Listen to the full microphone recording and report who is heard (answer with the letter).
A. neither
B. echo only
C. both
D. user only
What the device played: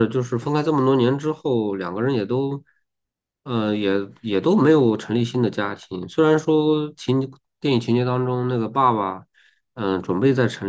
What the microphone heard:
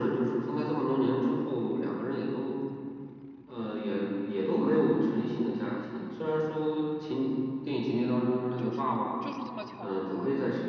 C